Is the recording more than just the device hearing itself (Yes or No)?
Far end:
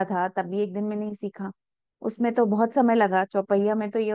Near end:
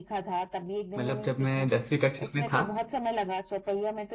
Yes